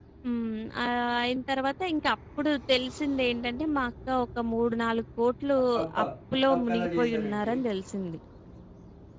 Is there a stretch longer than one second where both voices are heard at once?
Yes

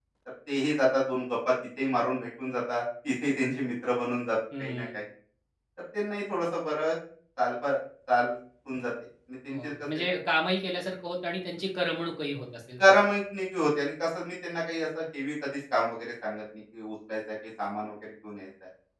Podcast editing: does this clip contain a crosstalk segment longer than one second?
No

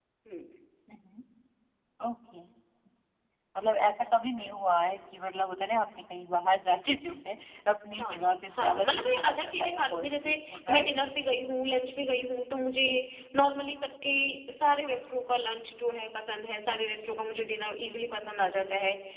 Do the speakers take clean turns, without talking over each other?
No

